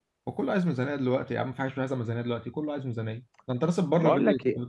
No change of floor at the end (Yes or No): No